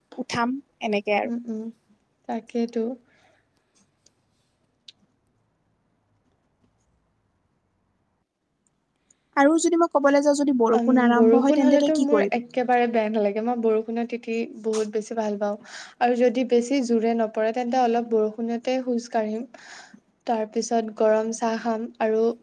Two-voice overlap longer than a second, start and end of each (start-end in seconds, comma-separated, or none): 10.8-12.4